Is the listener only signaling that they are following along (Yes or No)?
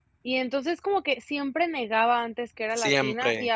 Yes